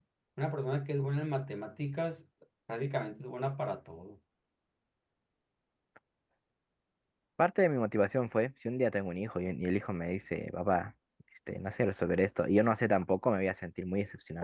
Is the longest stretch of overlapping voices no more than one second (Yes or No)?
Yes